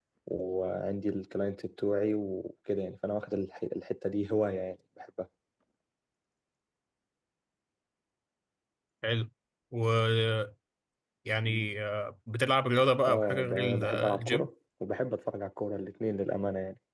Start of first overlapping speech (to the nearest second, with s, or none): 13 s